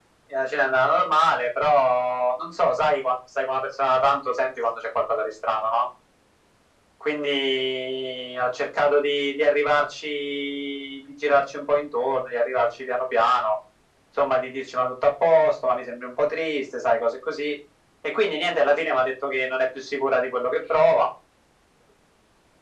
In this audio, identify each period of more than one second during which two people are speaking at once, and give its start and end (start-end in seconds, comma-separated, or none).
none